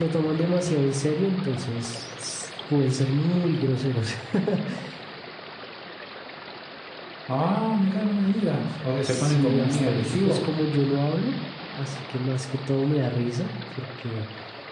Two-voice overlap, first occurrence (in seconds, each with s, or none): 9.0 s